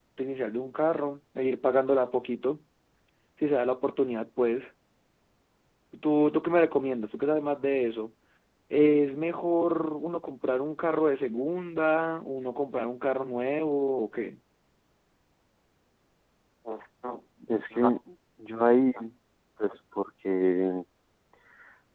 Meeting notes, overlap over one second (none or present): none